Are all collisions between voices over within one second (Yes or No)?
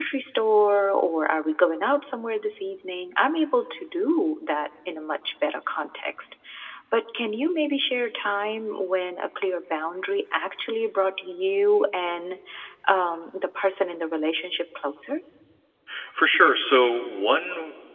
Yes